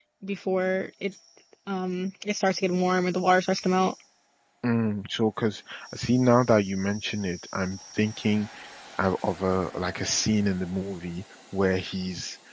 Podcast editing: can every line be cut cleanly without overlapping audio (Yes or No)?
Yes